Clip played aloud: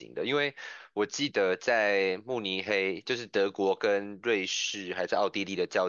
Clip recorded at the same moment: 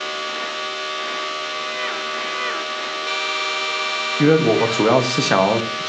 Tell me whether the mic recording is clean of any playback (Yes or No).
Yes